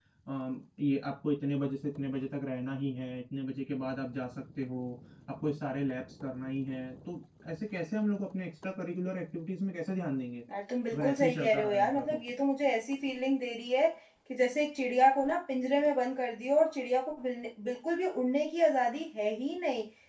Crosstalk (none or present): present